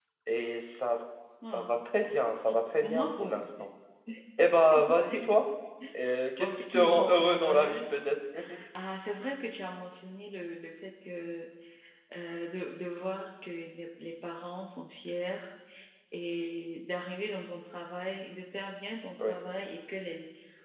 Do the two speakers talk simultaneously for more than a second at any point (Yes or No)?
Yes